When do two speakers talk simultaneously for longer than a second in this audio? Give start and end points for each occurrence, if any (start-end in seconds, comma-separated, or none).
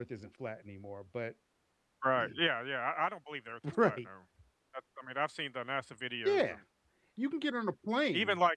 none